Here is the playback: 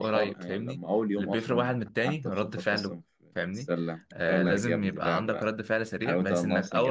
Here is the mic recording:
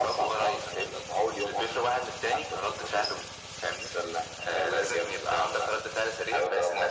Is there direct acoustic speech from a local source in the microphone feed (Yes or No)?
No